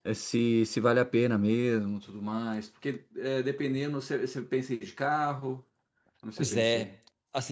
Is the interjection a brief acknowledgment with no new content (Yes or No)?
No